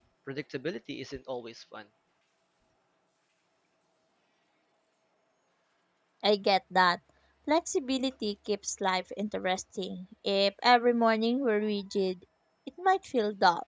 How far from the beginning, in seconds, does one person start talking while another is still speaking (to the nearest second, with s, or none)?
none